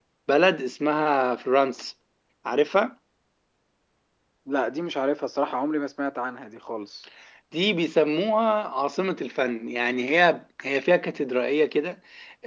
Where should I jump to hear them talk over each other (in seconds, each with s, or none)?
none